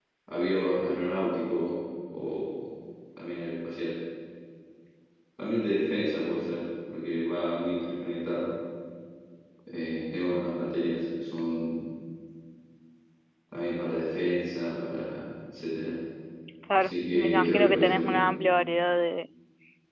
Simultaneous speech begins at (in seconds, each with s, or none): 16.8 s